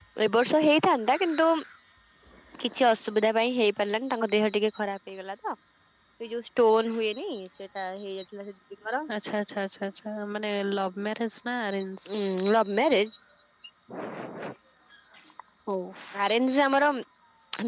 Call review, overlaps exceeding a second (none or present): none